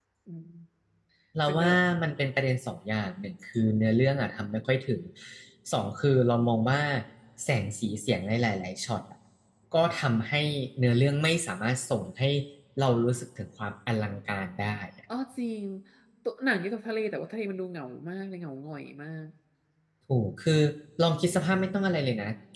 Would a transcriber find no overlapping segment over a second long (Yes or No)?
Yes